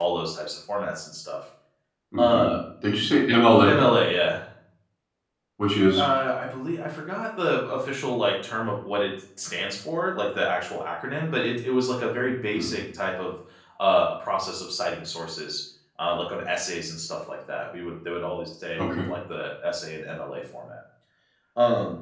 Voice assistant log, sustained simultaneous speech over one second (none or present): none